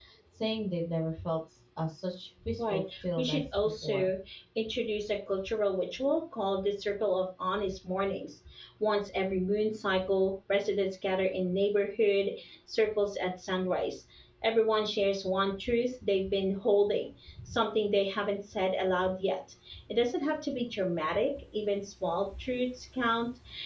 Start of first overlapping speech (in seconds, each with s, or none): 2.5 s